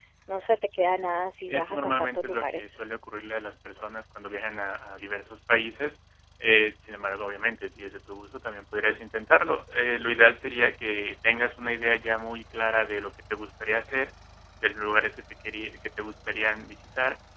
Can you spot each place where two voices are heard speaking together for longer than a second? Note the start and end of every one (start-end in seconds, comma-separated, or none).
1.5-2.7